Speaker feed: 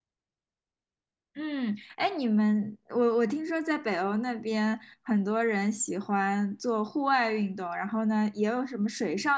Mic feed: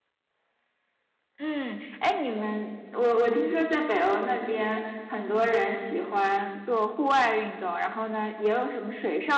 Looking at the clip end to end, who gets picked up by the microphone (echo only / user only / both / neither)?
echo only